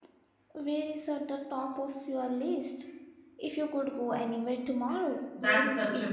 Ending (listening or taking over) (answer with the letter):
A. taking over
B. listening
A